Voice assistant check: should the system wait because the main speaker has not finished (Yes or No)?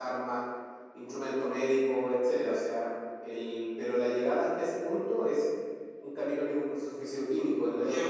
Yes